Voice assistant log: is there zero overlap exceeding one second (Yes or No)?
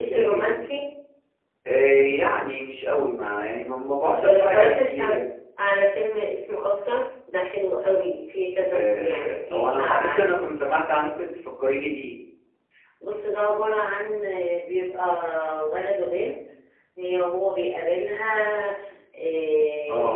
No